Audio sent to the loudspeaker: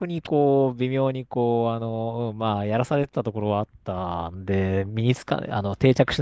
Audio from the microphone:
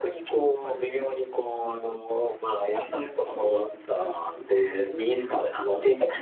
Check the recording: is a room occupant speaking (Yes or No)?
Yes